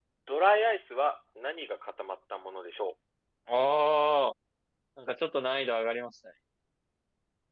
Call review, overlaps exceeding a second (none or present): none